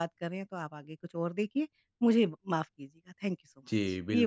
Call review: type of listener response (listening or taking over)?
taking over